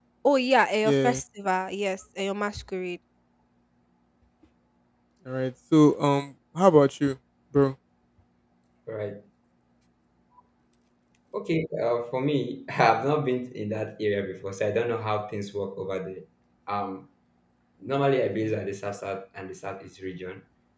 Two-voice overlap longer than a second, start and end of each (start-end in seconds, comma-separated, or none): none